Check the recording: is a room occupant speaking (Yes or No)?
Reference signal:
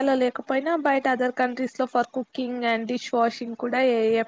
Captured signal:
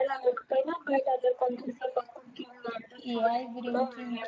Yes